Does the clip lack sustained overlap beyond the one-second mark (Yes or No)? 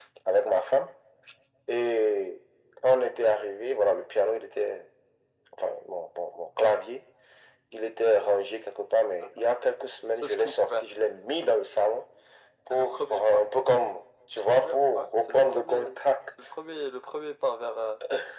No